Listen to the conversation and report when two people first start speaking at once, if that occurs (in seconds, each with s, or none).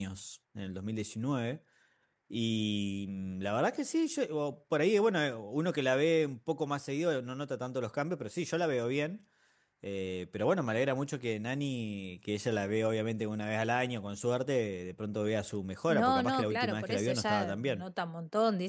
15.9 s